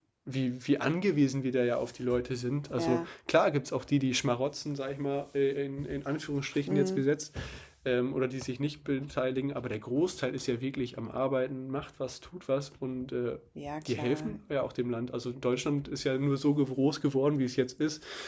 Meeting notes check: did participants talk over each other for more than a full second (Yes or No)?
No